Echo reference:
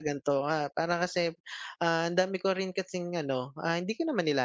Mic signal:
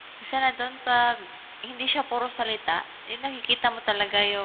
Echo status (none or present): none